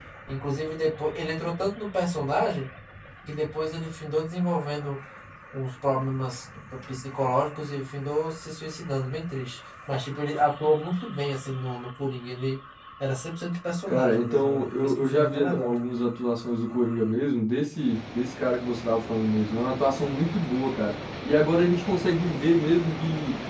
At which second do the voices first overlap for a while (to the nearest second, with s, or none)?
14 s